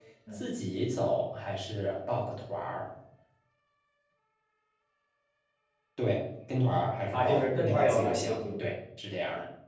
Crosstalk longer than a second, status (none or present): present